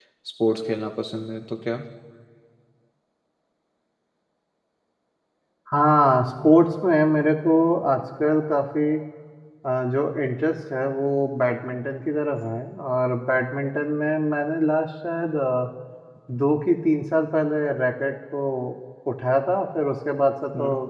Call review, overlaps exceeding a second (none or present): none